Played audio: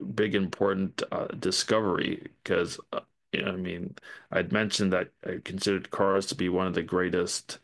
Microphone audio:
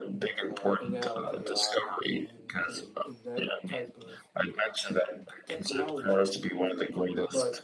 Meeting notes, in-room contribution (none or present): present